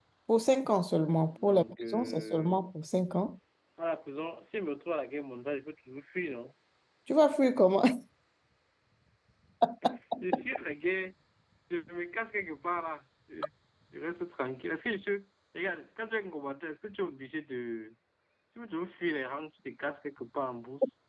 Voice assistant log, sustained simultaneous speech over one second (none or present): present